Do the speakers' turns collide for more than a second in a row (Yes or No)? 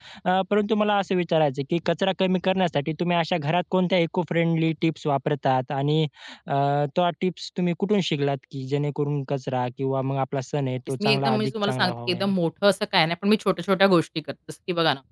Yes